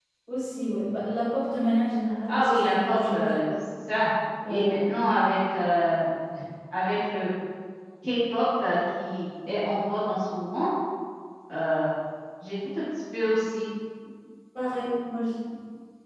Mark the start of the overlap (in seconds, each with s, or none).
2.3 s